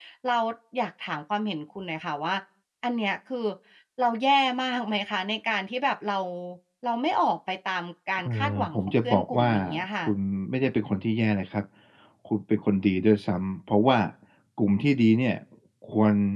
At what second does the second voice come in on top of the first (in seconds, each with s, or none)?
8.2 s